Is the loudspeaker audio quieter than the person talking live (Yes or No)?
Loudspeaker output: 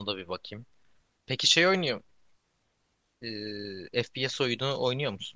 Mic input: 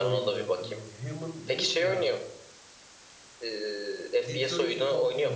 No